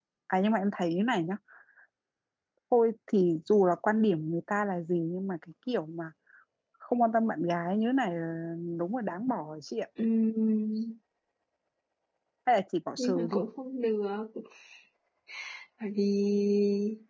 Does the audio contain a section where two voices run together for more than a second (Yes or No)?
No